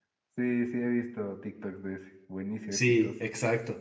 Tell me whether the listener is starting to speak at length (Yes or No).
Yes